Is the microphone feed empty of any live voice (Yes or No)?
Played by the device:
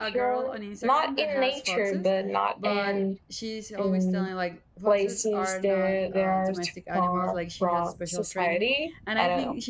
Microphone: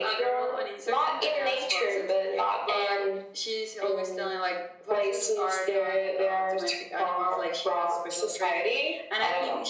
Yes